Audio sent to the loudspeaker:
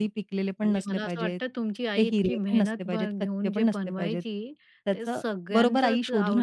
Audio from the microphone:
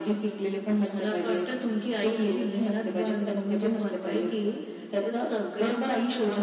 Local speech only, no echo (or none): none